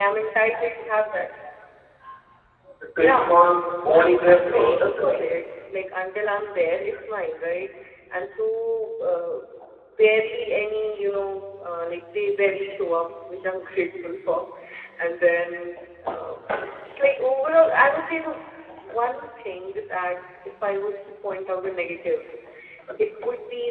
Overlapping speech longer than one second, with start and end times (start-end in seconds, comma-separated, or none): 3.8-5.4